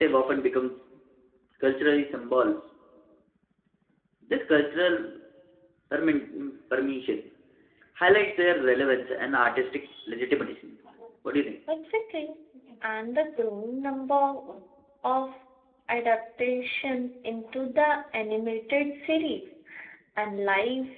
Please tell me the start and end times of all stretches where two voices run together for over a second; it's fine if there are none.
none

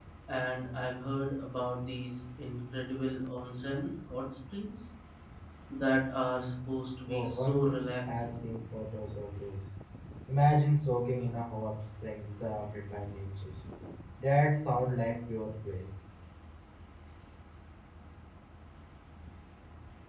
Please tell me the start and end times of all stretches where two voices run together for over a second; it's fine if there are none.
7.1-8.4

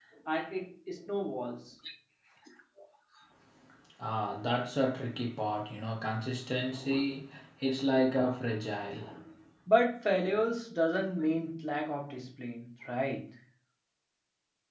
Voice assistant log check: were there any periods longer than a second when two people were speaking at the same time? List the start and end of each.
none

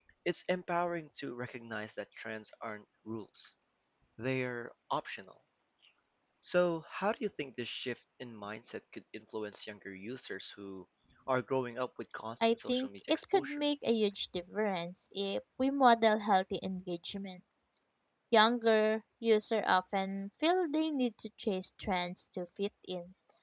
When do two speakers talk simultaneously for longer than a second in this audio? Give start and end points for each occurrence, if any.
12.4-13.6

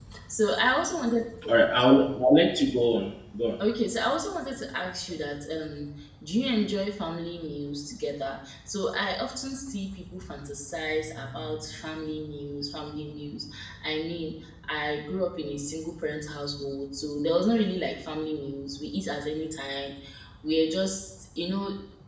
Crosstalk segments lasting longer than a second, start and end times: none

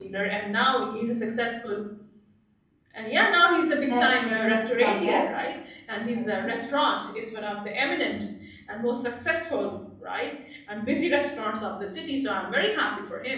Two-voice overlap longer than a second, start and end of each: 3.9-5.2

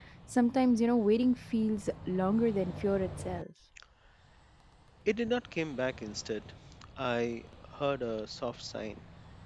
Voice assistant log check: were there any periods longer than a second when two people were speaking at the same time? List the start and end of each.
none

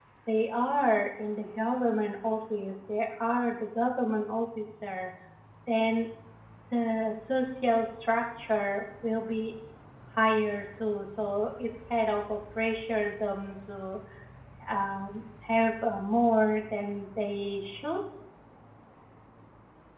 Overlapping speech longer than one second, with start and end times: none

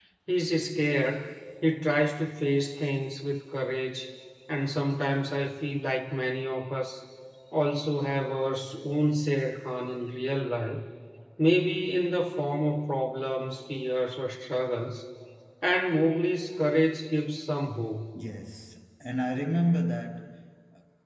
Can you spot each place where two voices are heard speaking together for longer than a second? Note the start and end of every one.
none

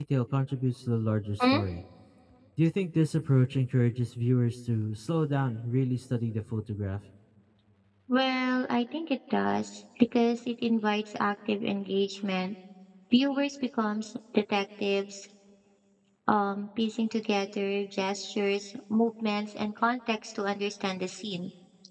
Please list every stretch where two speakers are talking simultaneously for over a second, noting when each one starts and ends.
none

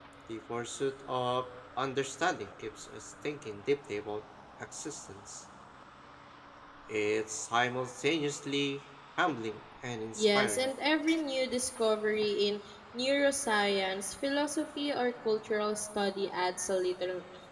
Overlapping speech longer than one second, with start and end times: none

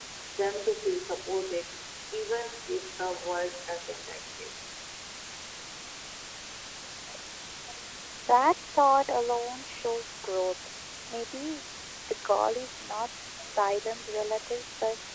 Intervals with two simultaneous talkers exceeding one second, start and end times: none

